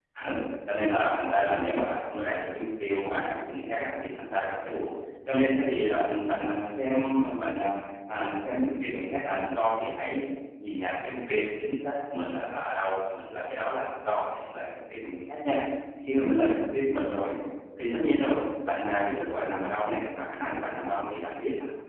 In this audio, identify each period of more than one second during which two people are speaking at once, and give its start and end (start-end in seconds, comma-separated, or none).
none